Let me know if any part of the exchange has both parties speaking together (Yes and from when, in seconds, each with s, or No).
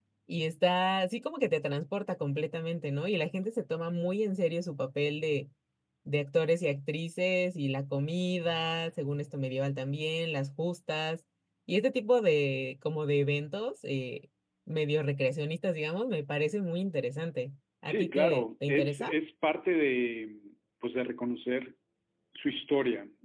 Yes, from 17.9 s